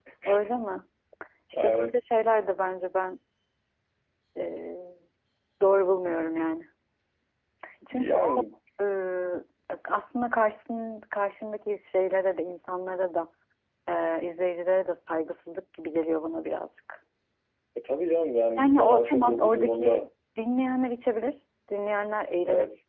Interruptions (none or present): present